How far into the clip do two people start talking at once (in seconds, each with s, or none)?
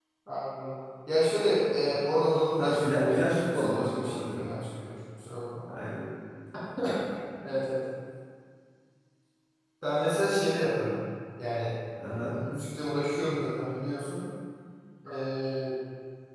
2.6 s